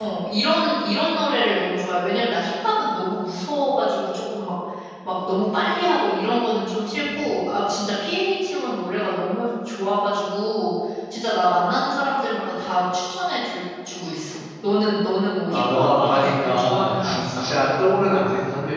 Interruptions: present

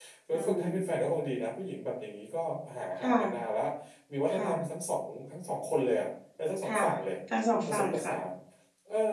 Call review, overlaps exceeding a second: none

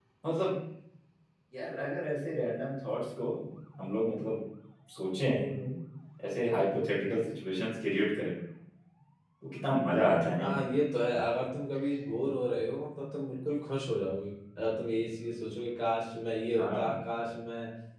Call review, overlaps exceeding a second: none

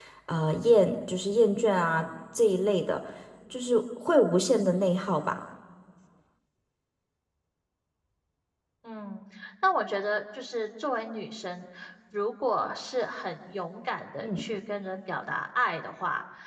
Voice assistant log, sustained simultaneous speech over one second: none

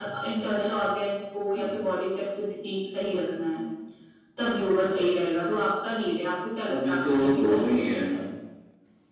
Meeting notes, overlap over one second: present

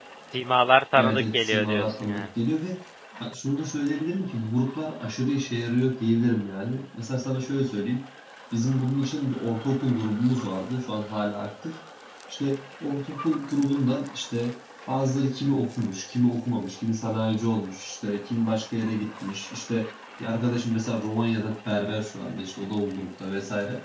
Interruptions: present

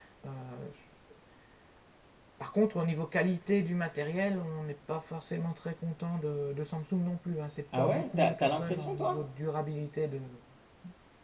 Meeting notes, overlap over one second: present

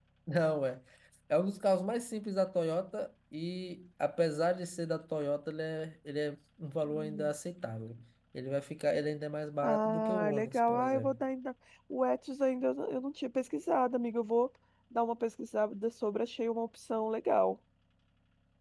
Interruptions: present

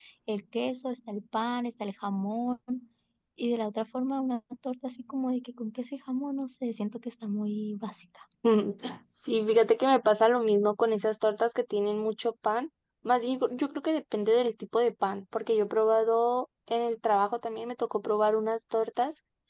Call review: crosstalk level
none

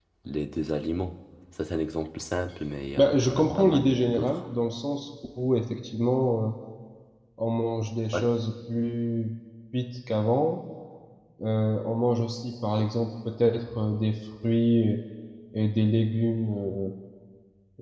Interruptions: present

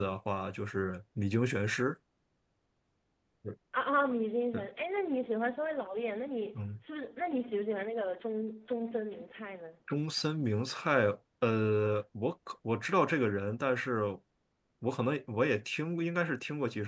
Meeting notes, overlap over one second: none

